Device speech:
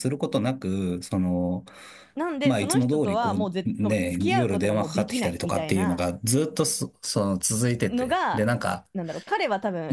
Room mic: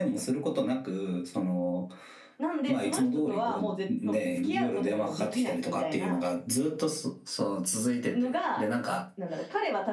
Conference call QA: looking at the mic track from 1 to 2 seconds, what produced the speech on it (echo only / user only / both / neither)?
echo only